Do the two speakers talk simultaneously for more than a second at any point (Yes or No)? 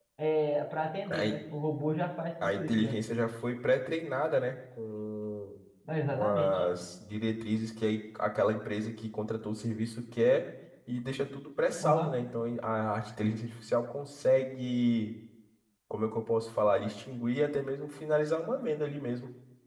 No